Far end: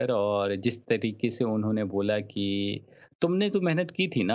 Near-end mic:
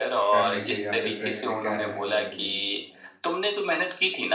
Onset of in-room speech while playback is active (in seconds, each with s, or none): 0.3 s